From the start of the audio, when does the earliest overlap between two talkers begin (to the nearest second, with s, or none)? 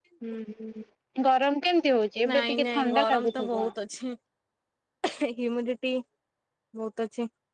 2 s